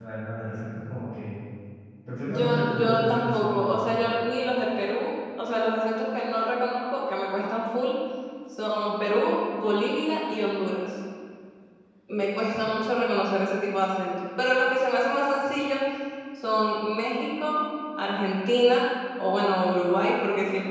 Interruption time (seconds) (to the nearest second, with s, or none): 2 s